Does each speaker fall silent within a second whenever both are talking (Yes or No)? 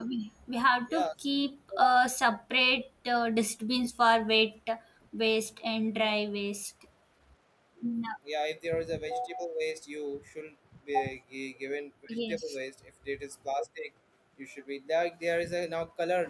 Yes